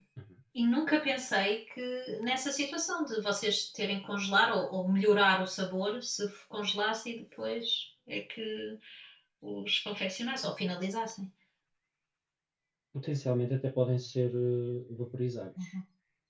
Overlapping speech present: No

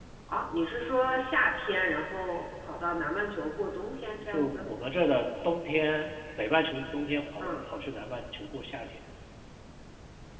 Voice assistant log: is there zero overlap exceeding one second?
Yes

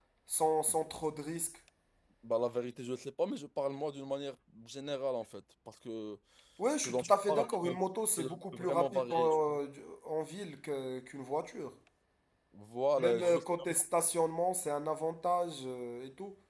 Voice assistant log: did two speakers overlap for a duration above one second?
Yes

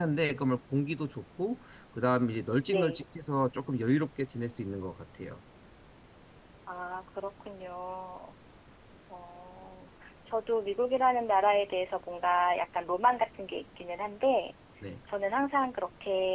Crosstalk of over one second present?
No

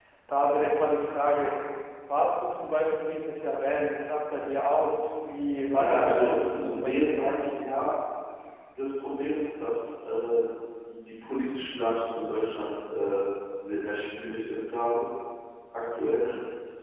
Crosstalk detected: Yes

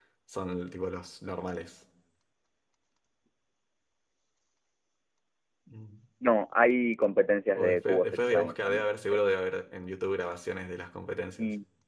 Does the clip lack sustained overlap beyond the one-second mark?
No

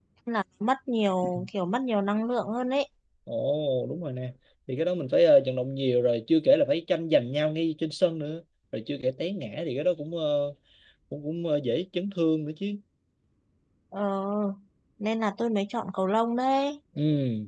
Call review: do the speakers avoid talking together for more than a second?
Yes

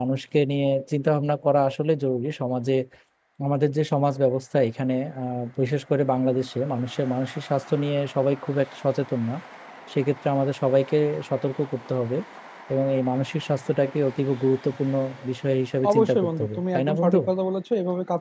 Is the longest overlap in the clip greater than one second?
Yes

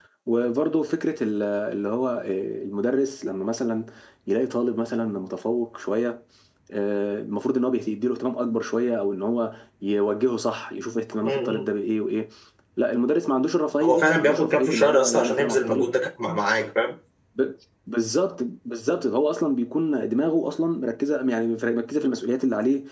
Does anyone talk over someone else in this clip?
Yes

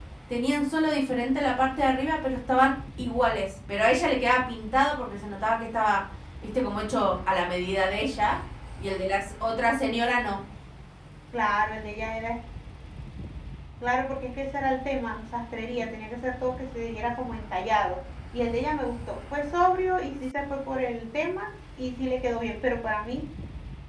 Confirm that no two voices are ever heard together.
Yes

